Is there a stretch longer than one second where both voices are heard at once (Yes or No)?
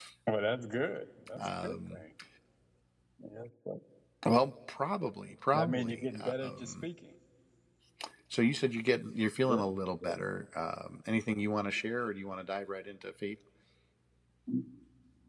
Yes